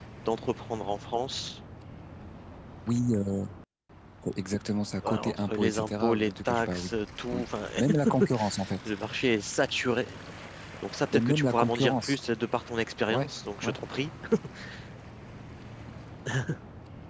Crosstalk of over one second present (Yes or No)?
Yes